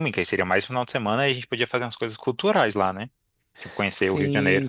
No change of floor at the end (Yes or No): No